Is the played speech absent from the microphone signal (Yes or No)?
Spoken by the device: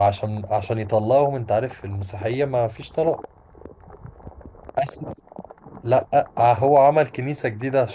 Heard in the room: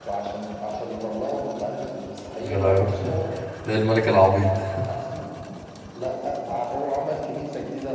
No